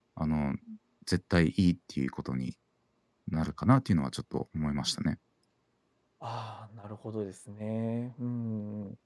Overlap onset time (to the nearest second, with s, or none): none